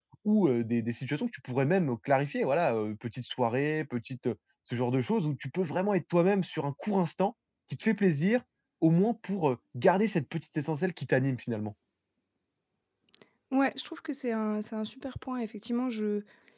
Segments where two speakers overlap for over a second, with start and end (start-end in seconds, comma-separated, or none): none